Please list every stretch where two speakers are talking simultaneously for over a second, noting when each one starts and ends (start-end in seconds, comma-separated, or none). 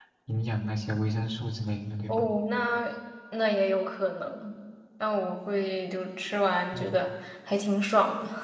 none